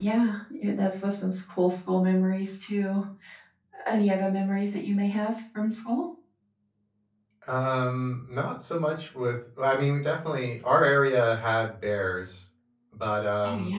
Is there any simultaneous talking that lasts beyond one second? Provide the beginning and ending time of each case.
none

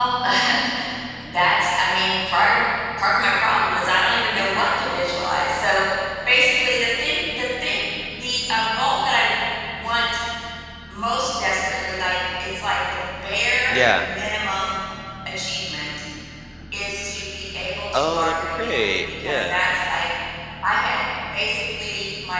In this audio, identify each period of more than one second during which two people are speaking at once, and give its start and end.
17.9-19.6

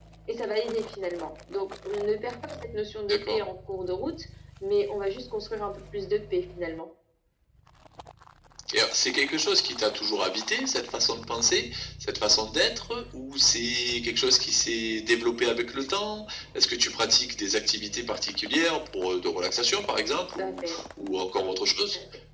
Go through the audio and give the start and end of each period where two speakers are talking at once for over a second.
none

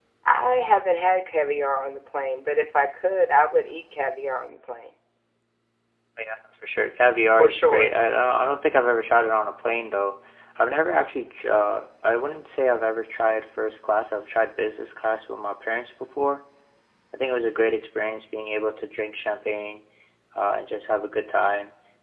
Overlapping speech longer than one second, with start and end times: none

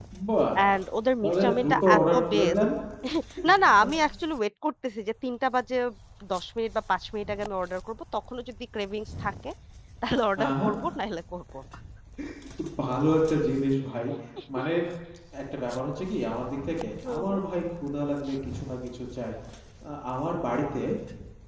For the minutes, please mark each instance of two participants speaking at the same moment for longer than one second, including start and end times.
1.2-2.6

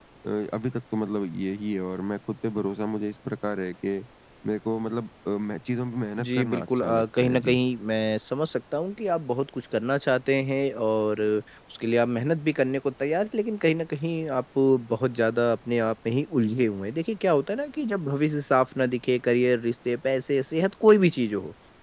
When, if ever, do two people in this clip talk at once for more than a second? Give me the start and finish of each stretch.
6.2-7.6

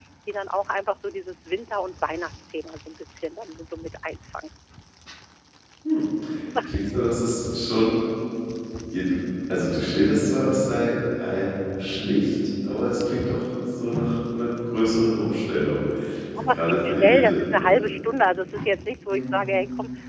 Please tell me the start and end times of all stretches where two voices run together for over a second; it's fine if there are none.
16.5-17.7

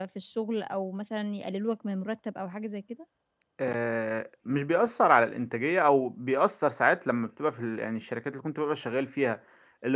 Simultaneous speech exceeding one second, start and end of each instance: none

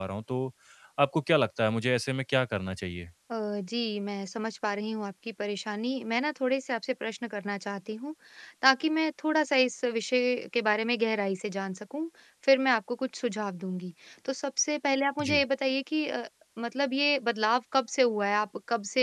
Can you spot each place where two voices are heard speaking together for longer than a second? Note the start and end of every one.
none

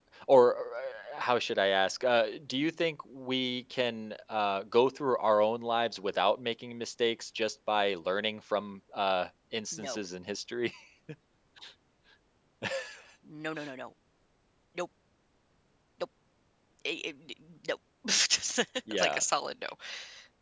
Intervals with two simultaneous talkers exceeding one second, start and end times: none

